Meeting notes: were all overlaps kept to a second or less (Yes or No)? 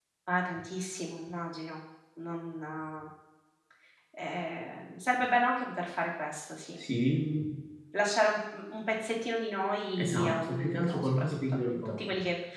No